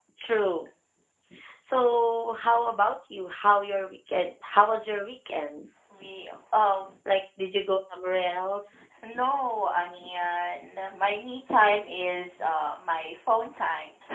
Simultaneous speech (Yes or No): No